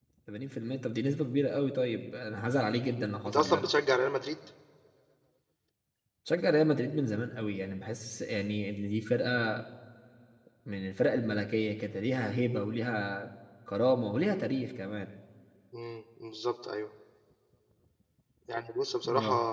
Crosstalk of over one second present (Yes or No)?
No